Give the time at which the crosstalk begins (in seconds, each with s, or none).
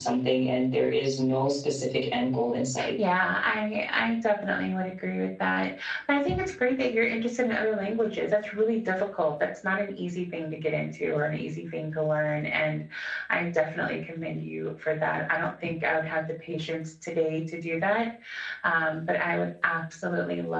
none